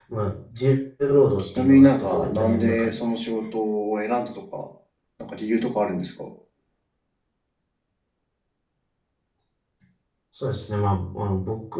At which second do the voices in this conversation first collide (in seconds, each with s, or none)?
1.4 s